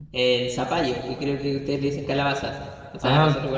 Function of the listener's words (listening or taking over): listening